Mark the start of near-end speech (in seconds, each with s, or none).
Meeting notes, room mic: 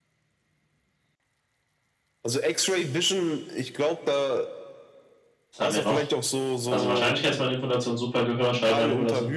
5.5 s